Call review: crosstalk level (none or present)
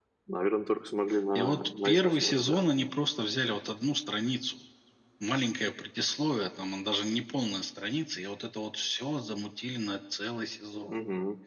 present